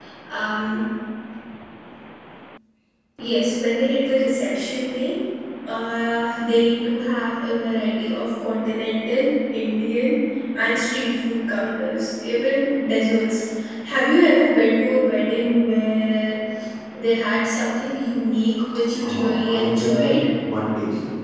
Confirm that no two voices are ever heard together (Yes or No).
No